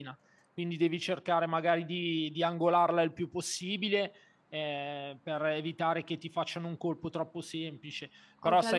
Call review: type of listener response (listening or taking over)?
taking over